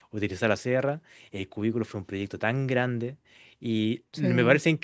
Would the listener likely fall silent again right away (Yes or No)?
Yes